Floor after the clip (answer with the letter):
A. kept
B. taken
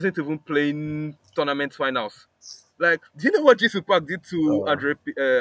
A